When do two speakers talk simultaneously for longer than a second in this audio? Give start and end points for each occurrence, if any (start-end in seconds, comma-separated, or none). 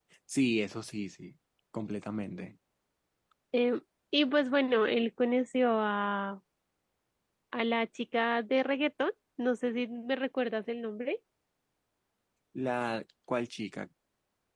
none